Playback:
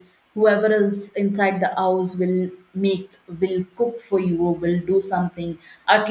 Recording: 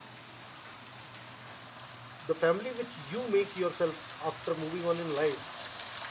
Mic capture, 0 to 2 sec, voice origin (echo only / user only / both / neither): neither